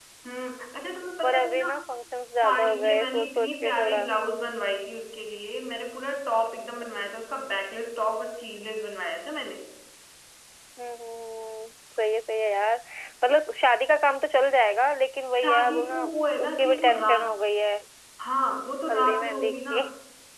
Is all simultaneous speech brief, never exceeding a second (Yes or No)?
No